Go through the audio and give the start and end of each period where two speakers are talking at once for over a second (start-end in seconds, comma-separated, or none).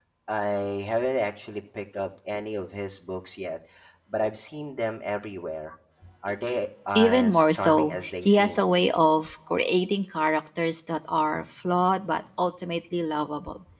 7.0-8.6